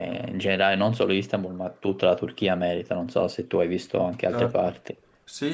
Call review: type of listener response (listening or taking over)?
taking over